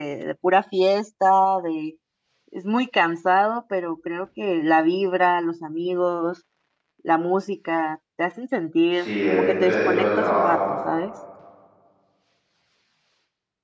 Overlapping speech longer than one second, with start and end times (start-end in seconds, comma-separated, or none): 8.9-10.5